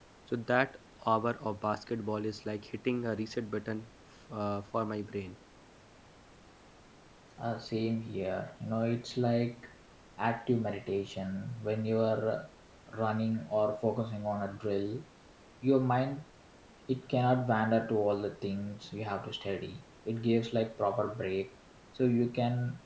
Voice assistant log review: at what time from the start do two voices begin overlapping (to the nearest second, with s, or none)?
none